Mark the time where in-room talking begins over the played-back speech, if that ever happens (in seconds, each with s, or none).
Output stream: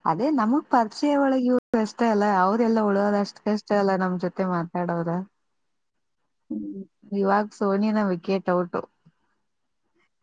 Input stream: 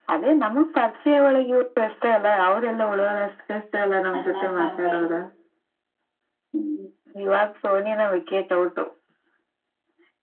4.2 s